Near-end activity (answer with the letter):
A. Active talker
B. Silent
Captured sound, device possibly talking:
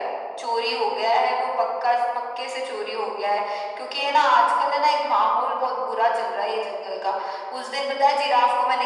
B